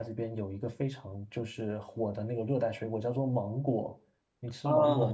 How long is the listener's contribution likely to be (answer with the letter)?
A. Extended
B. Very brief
A